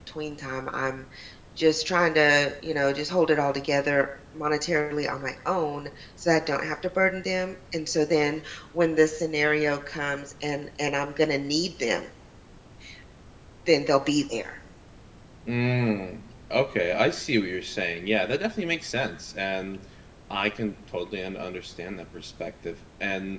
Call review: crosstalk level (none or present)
none